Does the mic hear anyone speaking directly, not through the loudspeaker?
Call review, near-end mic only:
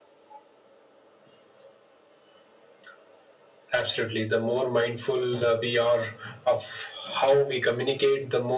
No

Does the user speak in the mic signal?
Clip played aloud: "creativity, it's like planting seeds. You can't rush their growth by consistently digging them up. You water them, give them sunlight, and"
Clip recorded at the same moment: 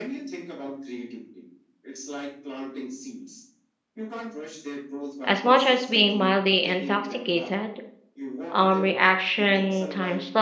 Yes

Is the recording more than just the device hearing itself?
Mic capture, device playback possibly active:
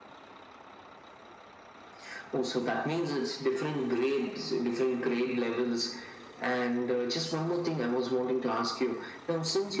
No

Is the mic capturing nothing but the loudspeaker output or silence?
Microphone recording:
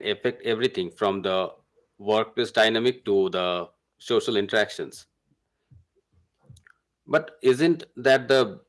No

